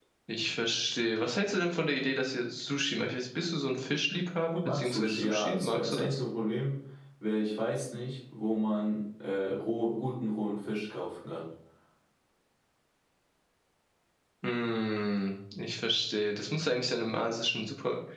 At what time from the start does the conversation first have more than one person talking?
4.6 s

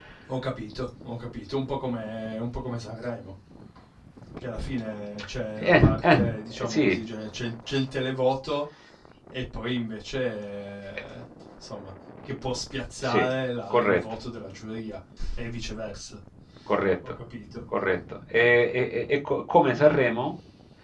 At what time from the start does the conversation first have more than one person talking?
5.6 s

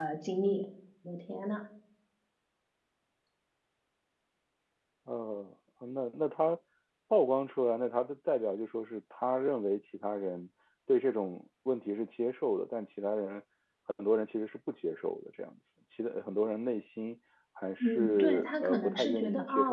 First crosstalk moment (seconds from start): 17.8 s

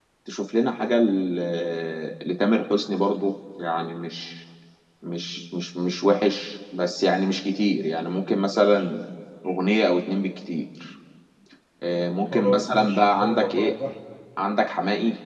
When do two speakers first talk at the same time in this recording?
12.3 s

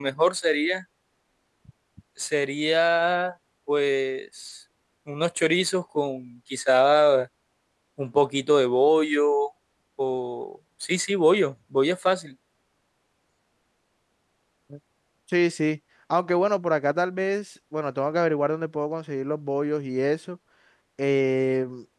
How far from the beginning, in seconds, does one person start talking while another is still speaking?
none

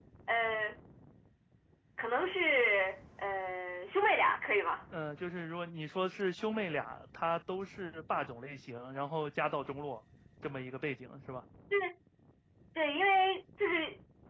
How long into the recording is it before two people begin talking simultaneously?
none

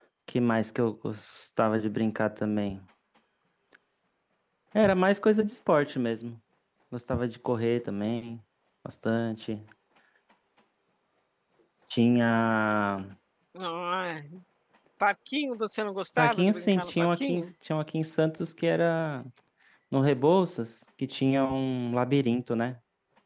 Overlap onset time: 16.2 s

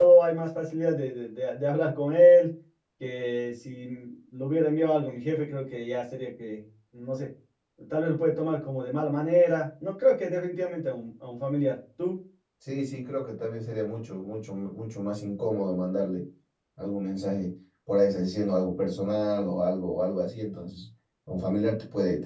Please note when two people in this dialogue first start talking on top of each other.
none

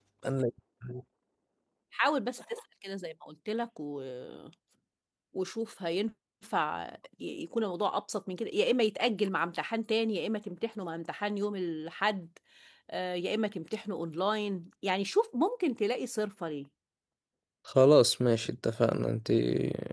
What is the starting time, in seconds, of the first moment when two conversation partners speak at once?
none

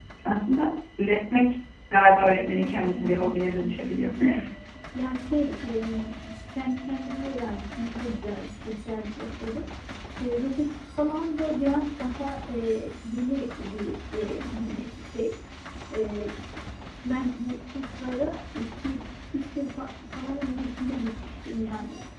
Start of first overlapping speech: 2.2 s

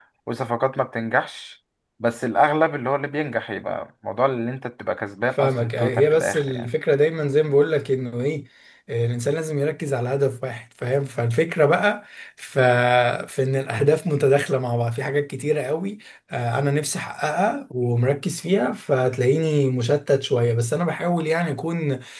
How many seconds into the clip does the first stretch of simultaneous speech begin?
5.4 s

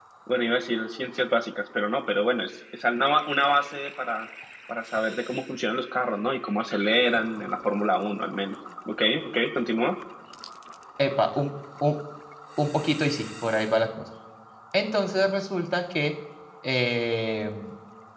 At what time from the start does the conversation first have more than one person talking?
none

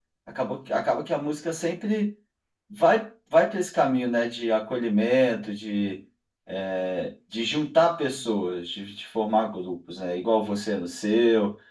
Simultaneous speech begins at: none

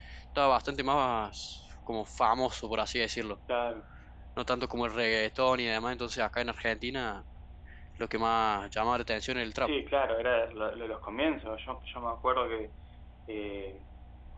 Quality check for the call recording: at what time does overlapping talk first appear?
none

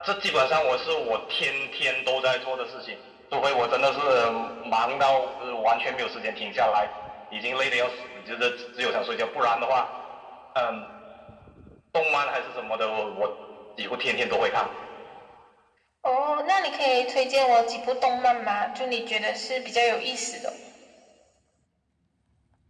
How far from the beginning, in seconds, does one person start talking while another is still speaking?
none

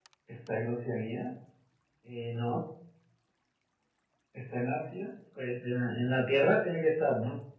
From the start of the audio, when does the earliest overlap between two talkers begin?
none

